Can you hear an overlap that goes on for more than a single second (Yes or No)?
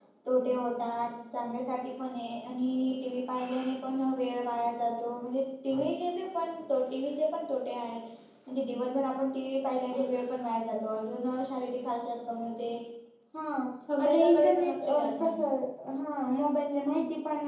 Yes